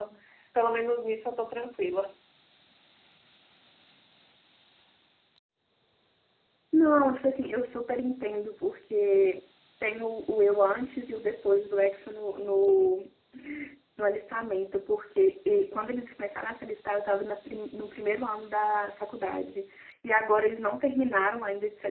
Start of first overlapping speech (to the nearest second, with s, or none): none